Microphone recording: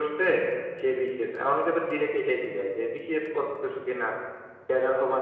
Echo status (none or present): present